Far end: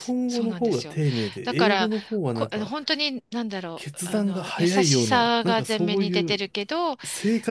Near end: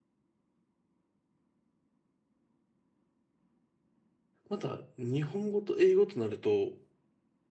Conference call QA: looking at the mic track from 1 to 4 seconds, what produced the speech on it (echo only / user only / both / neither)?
neither